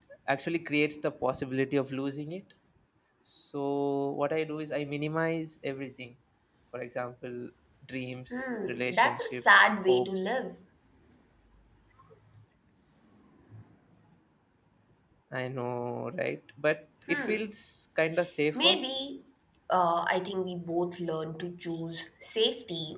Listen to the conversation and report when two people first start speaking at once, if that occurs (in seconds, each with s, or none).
8.7 s